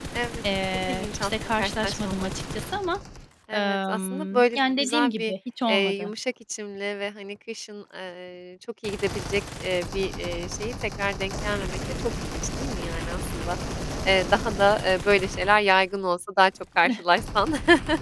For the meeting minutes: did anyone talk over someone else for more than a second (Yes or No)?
Yes